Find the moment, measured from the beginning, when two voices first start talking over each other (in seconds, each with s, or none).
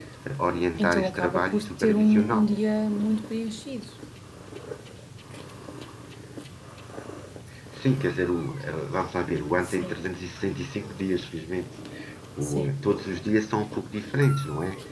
0.8 s